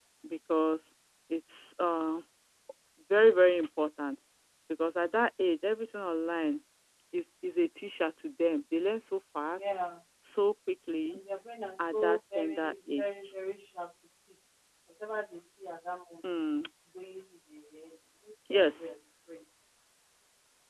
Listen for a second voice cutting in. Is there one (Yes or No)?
Yes